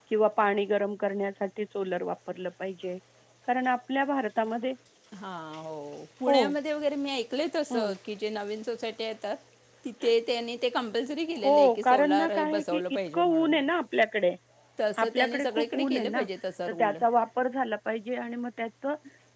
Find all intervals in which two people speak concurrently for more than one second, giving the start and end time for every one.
11.4-13.5, 15.0-16.2

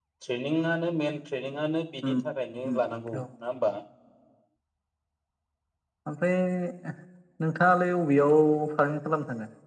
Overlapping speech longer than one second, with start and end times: none

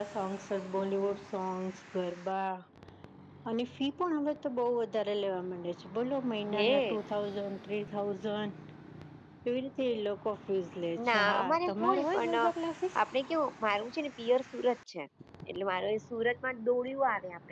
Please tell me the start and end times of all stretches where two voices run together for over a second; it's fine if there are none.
11.1-12.3

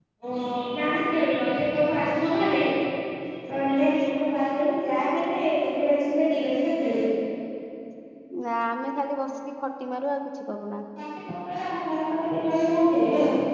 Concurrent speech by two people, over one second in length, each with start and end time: none

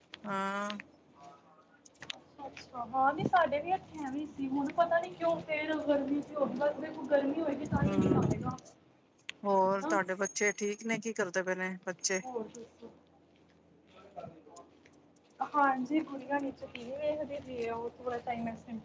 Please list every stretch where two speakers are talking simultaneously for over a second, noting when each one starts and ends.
none

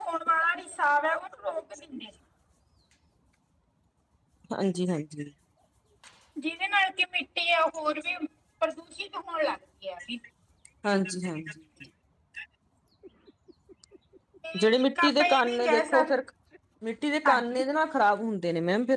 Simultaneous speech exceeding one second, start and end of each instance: 14.6-16.1

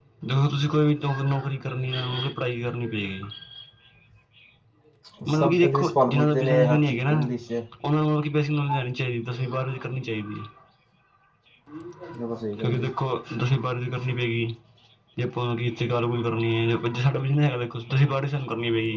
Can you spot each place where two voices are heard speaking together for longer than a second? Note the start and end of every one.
5.4-7.2

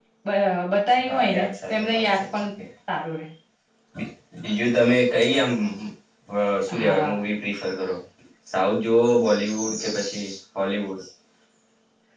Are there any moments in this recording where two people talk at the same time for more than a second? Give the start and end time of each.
1.1-2.3

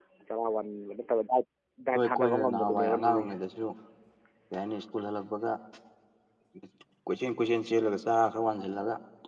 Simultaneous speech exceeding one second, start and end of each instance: 1.9-3.3

